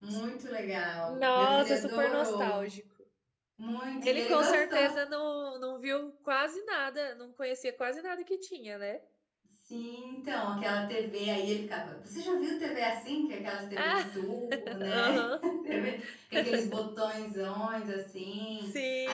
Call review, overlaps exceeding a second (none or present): present